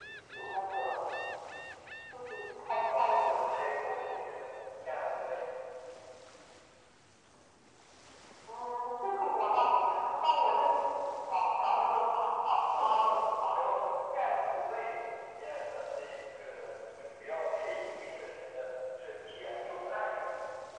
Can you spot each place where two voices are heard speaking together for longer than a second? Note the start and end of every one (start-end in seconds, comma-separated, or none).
2.9-4.4